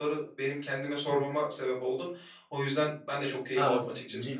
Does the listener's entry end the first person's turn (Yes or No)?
Yes